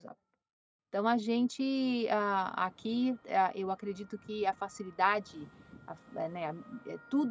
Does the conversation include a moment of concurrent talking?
No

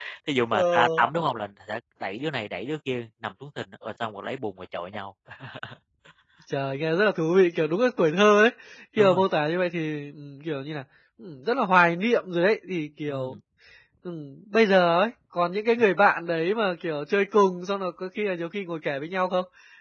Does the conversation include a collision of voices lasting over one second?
No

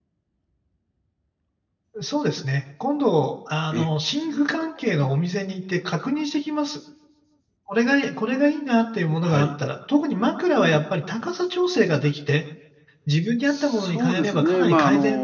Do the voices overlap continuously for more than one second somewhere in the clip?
Yes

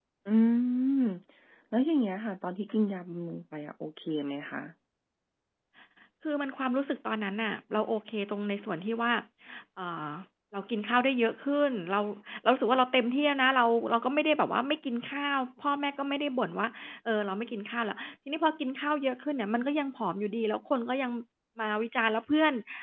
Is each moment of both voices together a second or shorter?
Yes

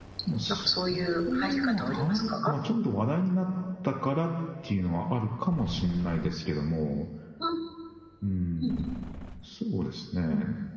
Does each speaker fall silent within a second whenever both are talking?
No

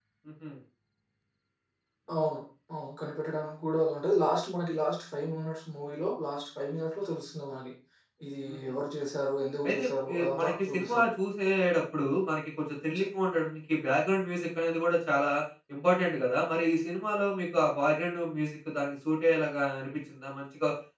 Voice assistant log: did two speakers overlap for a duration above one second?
Yes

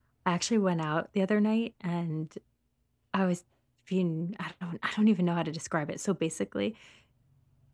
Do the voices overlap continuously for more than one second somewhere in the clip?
No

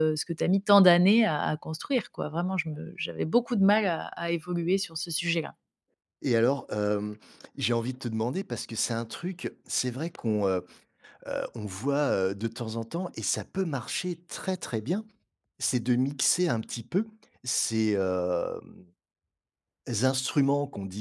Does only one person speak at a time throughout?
Yes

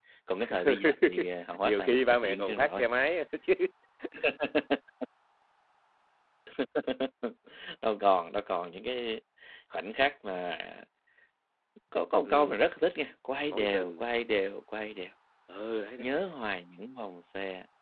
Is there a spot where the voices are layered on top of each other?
Yes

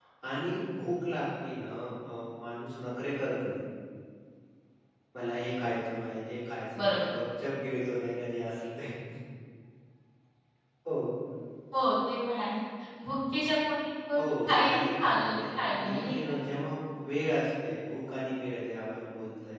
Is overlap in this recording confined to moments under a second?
No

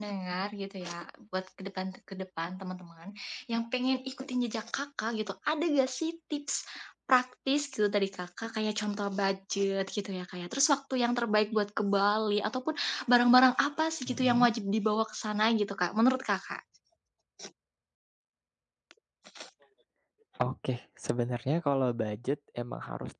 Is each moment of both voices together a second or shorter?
Yes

